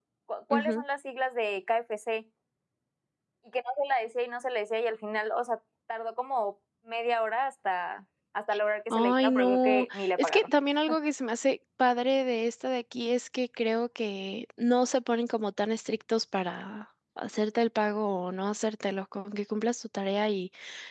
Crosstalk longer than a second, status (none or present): present